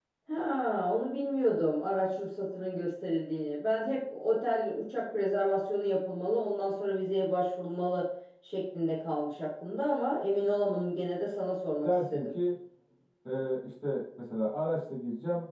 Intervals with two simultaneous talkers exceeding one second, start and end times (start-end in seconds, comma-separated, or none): none